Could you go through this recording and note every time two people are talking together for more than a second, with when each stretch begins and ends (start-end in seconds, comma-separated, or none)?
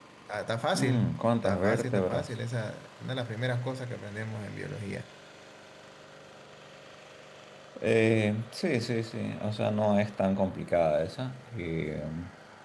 0.7-2.3